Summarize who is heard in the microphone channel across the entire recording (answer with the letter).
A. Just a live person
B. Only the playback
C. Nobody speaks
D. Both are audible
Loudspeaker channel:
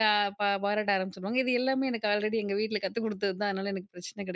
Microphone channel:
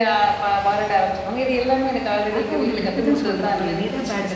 D